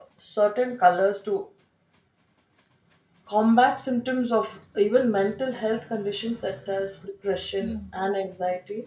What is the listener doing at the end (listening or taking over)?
listening